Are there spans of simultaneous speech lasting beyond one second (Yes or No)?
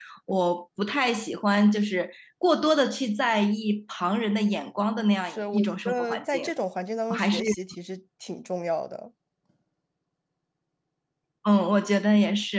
Yes